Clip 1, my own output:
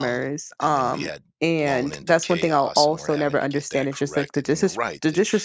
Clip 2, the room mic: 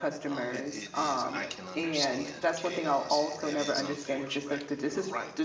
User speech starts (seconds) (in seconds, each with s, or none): 0.5 s